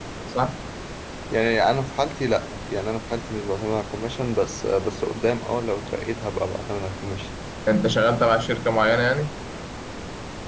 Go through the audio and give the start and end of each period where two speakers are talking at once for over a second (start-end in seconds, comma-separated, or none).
none